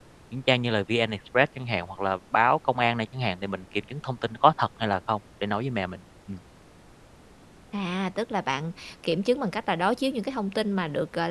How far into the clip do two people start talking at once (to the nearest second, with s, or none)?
none